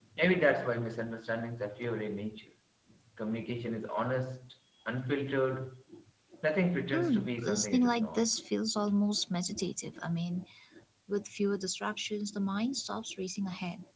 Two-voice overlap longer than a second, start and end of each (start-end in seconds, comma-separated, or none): 6.9-8.3